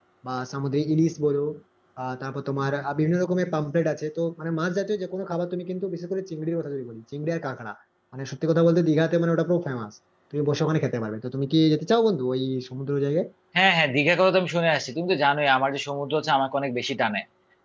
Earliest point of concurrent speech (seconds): none

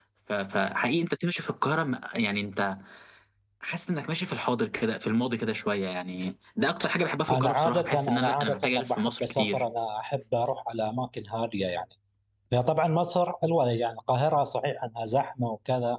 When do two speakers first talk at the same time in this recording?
7 s

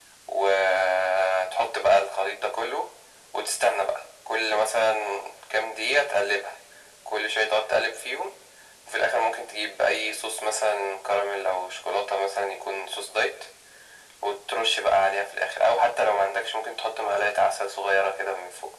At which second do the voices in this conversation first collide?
none

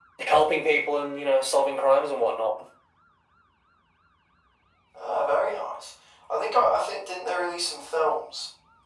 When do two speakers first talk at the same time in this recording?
none

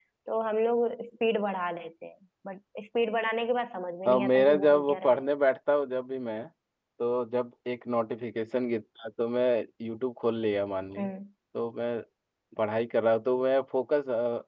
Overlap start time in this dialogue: 4 s

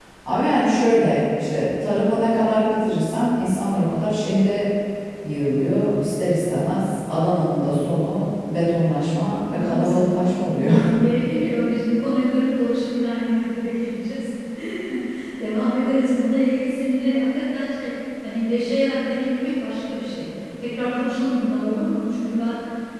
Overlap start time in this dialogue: 9 s

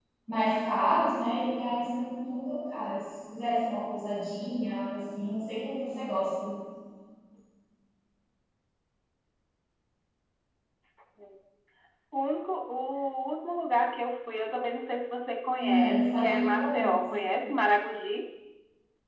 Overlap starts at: 16 s

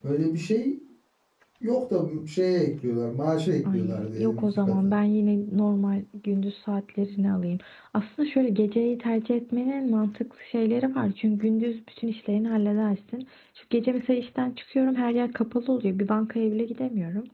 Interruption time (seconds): 4 s

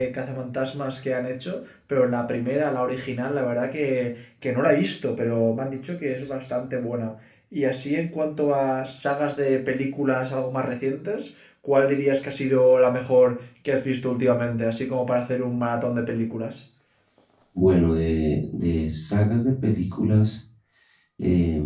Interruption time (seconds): none

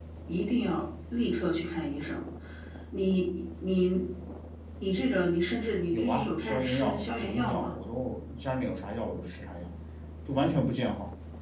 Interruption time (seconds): 6 s

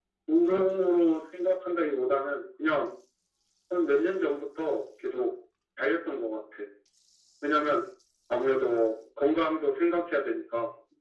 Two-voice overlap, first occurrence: none

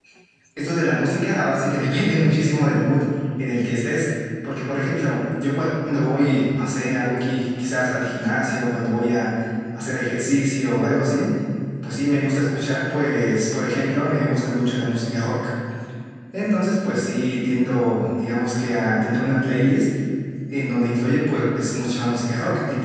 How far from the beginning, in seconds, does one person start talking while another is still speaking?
none

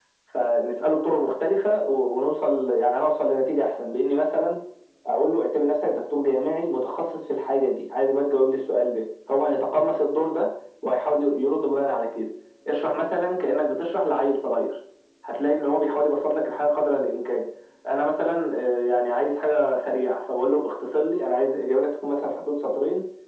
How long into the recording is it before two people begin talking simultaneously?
none

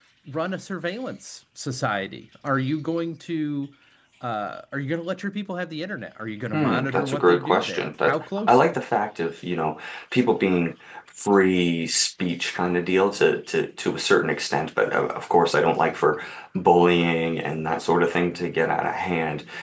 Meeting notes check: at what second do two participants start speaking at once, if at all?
7 s

